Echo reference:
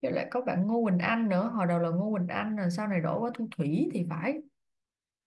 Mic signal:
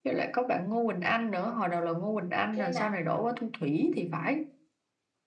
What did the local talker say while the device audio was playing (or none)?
kia nè